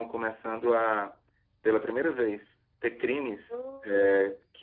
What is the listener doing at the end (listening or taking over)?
listening